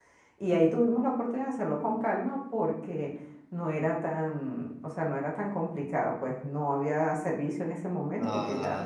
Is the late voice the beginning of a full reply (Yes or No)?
Yes